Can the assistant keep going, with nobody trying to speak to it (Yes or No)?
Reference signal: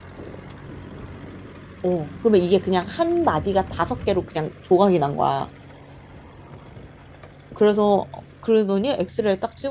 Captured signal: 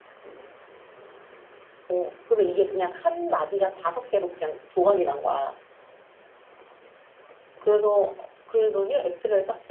Yes